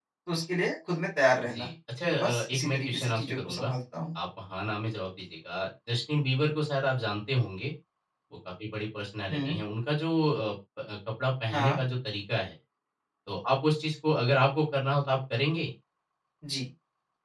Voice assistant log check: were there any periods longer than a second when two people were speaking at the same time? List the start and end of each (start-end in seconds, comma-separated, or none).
2.1-3.7